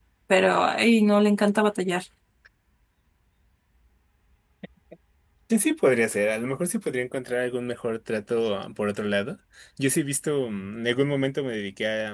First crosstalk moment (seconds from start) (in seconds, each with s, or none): none